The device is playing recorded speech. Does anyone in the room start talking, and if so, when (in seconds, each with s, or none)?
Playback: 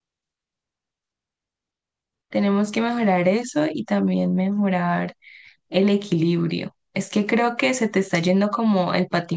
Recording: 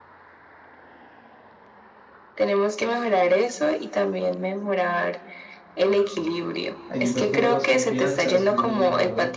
6.9 s